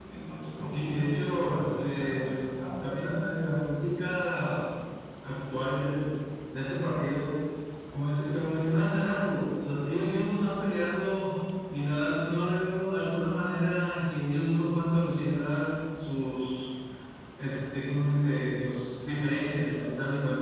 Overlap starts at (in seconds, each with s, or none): 0.7 s